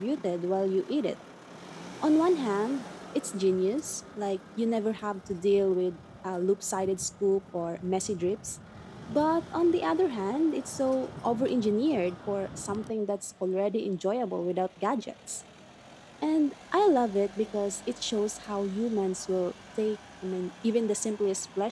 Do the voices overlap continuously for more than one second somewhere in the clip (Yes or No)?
No